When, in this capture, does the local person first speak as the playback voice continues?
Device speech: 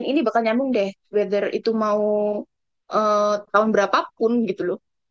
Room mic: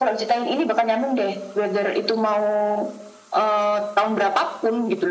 none

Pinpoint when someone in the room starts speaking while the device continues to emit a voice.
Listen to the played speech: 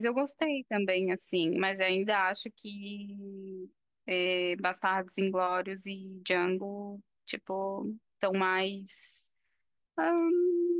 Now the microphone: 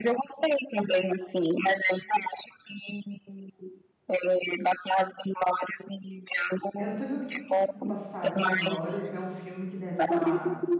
6.8 s

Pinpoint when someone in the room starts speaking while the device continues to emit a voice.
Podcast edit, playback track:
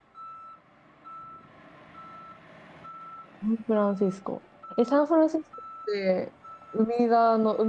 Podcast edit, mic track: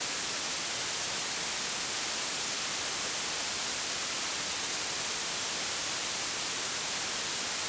none

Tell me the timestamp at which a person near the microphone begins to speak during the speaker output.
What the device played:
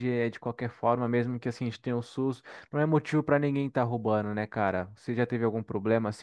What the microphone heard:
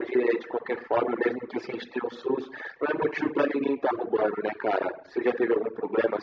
none

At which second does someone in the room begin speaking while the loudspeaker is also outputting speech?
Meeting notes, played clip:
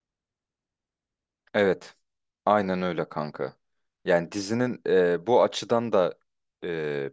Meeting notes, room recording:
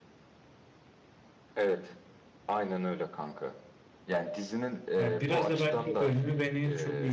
5.0 s

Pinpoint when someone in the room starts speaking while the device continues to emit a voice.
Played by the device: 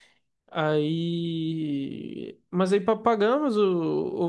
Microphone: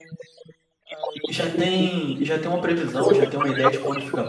1.2 s

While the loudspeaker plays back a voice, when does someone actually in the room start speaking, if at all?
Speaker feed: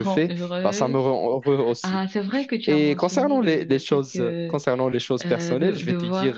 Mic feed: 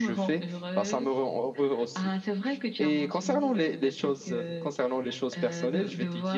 none

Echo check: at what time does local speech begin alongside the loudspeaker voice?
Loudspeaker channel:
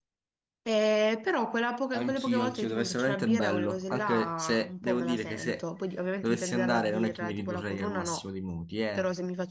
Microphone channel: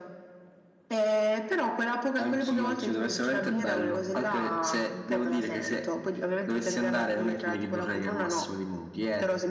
none

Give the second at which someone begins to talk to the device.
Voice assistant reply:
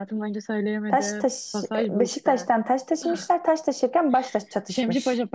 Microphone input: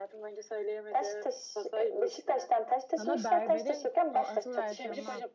3.0 s

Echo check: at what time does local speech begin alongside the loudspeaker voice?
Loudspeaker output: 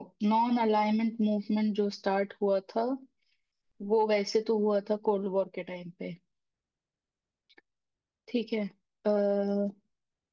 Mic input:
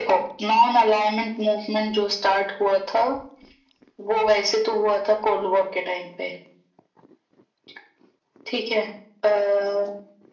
none

